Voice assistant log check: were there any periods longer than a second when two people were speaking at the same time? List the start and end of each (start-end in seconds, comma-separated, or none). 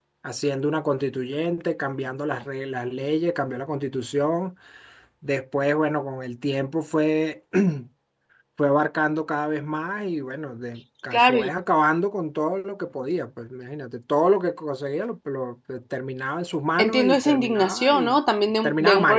16.8-18.2